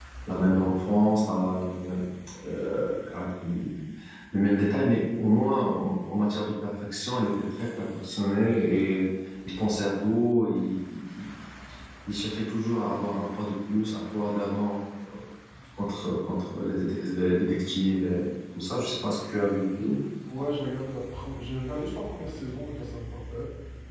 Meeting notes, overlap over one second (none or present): none